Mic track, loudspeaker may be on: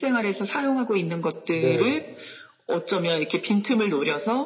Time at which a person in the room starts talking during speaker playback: 1.5 s

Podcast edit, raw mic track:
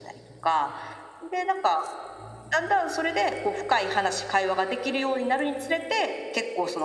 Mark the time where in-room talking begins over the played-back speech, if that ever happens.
none

